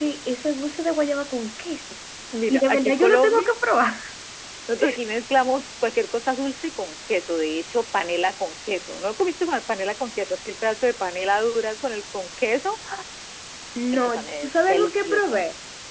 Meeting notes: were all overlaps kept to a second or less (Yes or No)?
No